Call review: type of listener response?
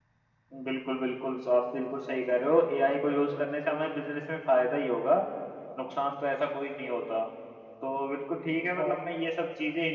listening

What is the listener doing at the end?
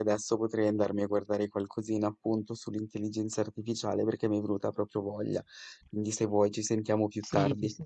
taking over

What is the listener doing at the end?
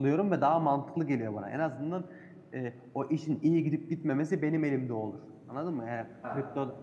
listening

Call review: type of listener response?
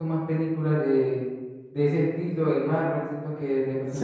listening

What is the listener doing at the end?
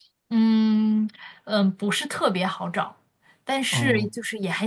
listening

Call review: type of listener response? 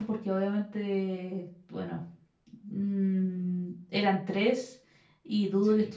listening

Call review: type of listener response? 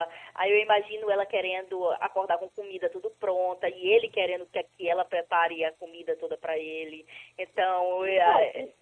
taking over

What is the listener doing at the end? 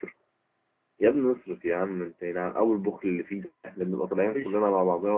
listening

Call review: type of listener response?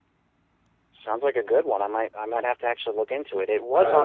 listening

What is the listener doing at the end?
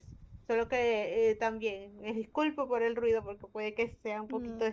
taking over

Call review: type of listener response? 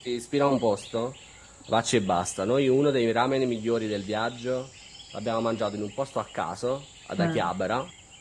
listening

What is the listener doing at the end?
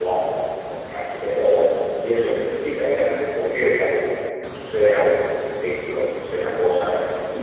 listening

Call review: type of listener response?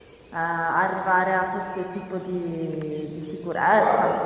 listening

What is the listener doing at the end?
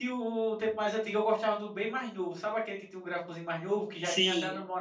listening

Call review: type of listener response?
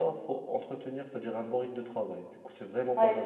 taking over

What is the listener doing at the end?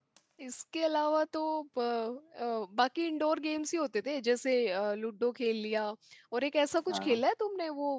listening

